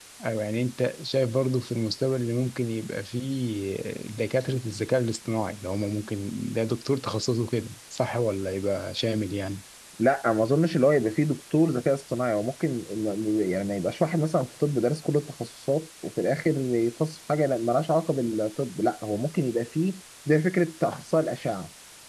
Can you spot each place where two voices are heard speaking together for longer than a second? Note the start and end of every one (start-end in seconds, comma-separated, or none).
none